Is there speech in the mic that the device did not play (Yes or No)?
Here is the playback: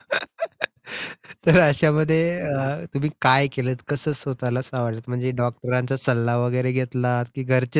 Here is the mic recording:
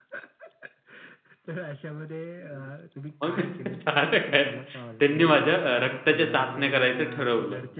Yes